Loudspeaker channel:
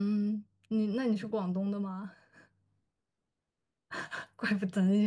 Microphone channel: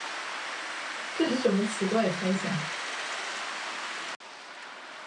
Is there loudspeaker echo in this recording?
No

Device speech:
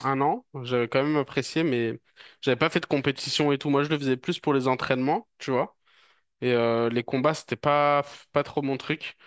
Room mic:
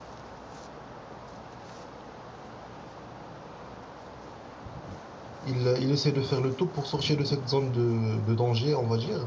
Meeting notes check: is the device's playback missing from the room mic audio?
Yes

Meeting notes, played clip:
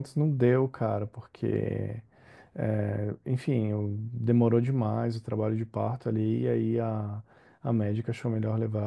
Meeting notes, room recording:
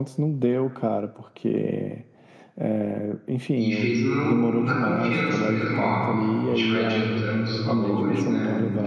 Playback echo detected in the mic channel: Yes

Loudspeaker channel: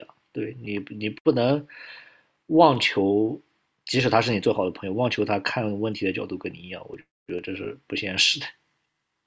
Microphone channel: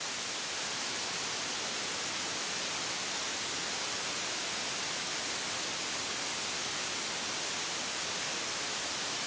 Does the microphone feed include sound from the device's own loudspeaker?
No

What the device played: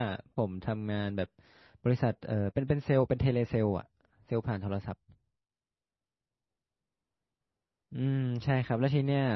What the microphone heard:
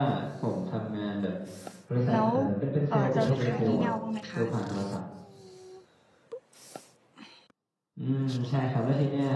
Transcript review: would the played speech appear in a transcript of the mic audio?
Yes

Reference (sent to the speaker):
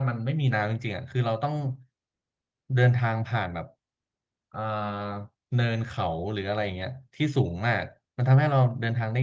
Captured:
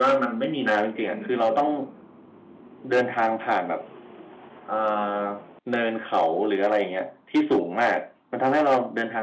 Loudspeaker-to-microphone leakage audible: Yes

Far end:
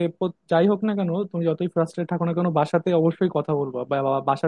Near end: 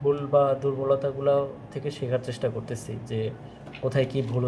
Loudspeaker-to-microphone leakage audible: No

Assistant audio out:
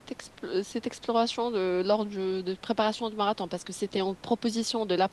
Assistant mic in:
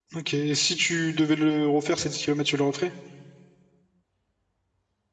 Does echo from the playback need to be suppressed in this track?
No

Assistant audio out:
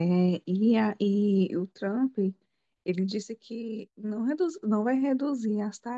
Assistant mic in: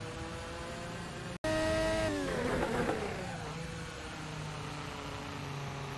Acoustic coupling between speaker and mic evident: No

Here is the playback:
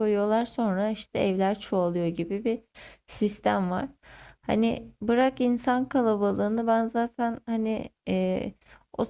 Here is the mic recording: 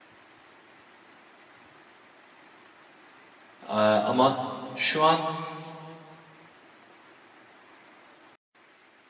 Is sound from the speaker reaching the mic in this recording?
No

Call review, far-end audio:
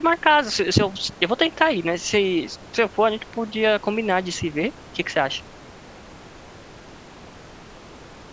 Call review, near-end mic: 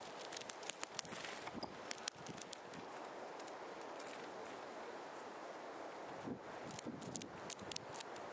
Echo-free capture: Yes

